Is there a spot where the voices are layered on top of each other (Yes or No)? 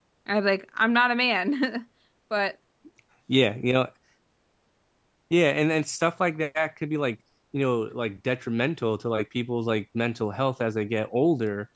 No